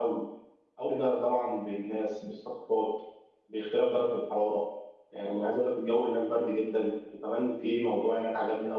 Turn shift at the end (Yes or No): No